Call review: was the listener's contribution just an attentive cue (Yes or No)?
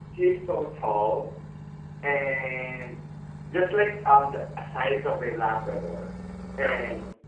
Yes